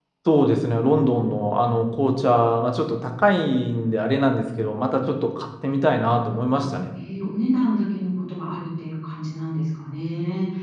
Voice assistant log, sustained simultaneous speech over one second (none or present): none